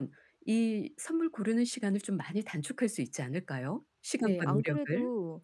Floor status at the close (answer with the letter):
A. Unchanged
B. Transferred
B